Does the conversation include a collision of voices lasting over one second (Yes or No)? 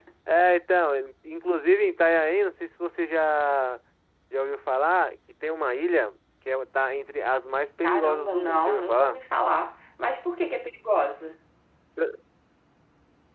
Yes